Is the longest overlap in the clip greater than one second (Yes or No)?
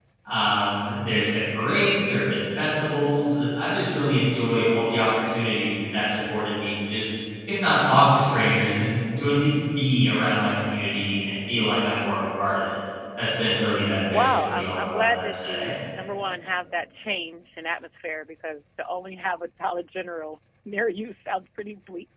Yes